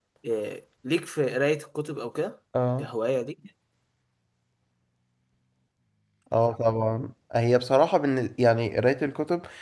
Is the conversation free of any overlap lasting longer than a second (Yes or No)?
Yes